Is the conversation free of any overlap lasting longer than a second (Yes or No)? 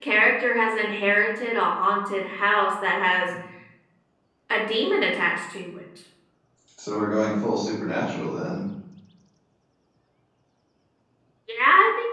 Yes